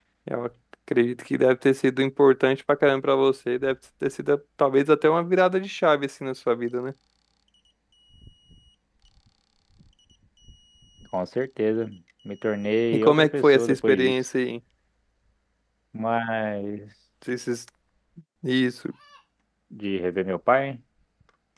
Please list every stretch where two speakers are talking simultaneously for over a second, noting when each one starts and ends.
12.9-14.1

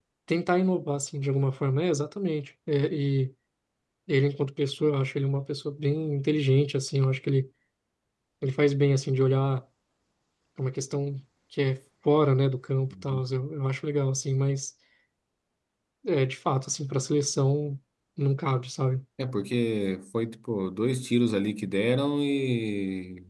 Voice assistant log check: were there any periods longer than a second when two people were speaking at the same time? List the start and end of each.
none

